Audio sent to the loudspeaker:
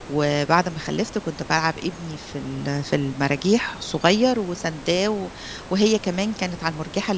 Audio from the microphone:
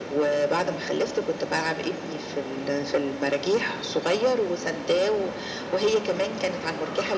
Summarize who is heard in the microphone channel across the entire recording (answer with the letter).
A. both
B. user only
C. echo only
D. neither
C